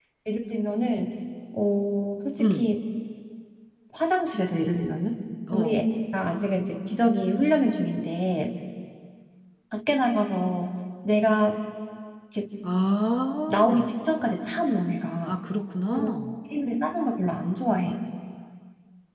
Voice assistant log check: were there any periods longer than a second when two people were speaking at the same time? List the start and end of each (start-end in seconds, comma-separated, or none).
none